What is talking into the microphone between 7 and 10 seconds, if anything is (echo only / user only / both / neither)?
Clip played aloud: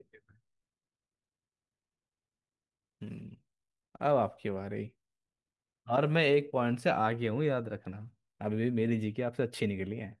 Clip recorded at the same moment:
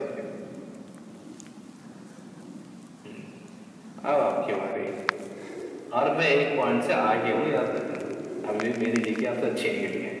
echo only